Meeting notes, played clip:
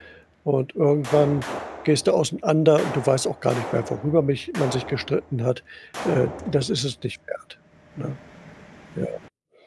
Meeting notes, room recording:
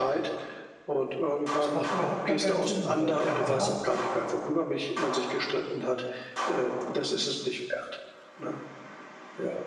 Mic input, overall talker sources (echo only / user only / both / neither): both